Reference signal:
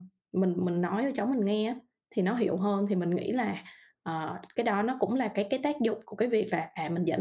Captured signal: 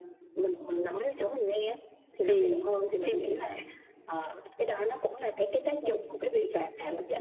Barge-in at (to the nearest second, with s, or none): 2 s